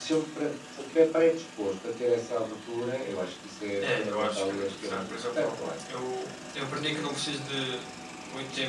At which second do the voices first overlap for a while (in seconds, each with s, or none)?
3.8 s